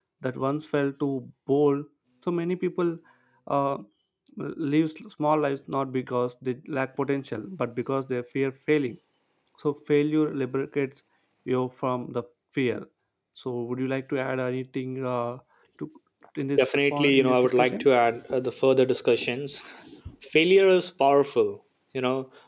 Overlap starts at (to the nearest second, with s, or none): 17 s